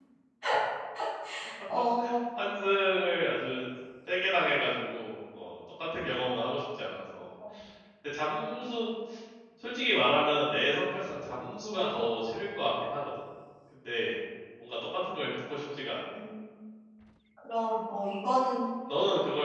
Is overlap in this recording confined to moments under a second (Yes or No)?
Yes